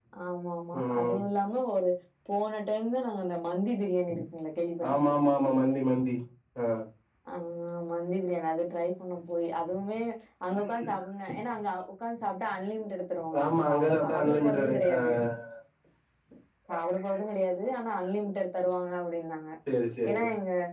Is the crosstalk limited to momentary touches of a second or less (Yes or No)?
No